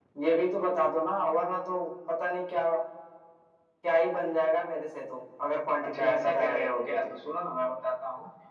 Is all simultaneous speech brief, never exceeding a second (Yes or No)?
No